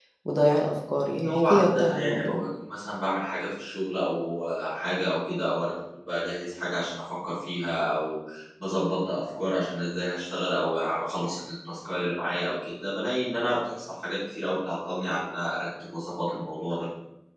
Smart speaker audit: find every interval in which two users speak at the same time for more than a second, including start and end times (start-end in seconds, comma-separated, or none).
1.1-2.4